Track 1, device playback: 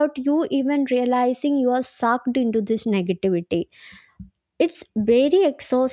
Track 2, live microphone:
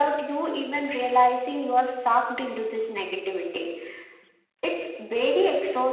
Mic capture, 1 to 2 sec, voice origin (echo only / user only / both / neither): echo only